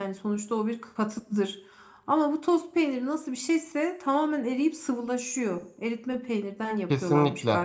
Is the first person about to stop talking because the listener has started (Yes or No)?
Yes